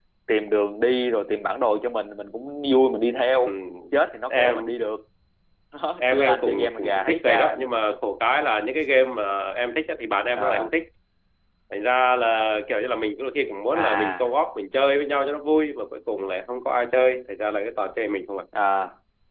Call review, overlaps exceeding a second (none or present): present